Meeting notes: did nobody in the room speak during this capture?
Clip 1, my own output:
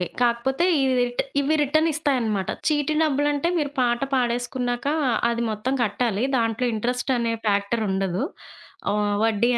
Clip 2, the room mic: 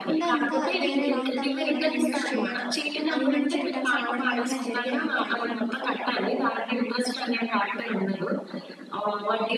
No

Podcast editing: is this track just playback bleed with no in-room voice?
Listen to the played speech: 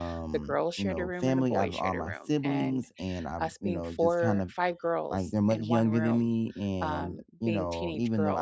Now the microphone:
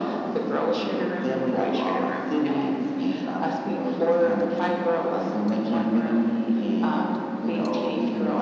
Yes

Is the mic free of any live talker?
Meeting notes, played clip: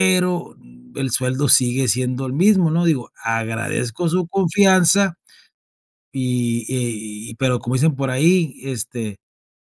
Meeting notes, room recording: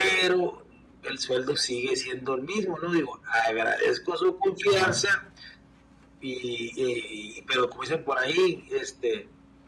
No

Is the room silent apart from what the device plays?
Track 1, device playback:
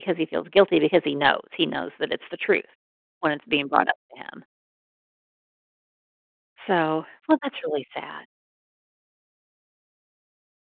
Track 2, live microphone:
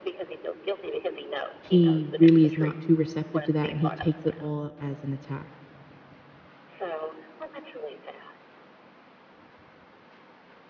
No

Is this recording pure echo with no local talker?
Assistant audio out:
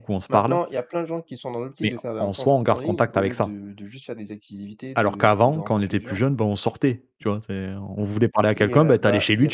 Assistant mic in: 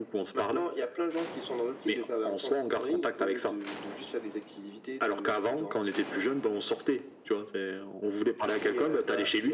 Yes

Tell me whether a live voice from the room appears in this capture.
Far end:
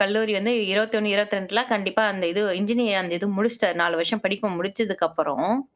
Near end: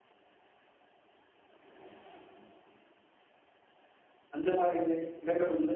Yes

